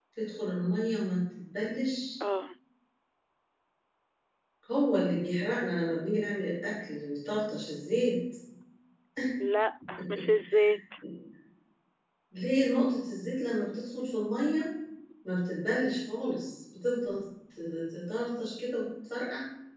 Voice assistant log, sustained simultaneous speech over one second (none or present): none